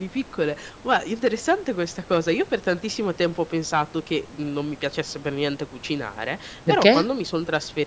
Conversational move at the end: listening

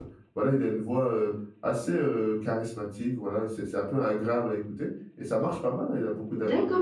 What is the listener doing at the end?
taking over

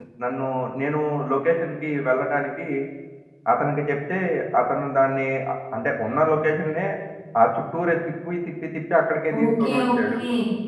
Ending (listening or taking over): taking over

